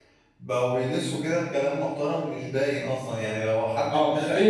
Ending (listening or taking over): taking over